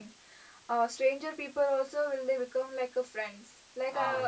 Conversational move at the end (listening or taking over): listening